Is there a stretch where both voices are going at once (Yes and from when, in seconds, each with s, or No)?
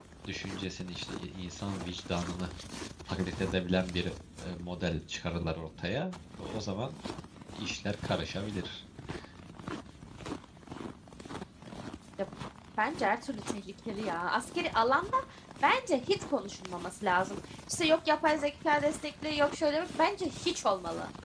No